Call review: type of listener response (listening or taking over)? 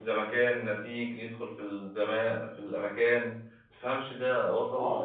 taking over